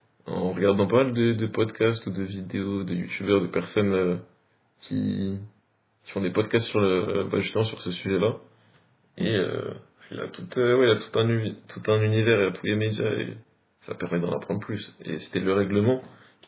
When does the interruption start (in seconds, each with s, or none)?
none